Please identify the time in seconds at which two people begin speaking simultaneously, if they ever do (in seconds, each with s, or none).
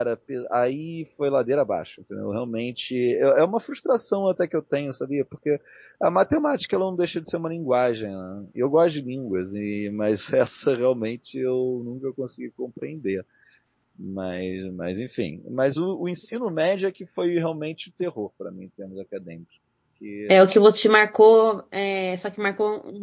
none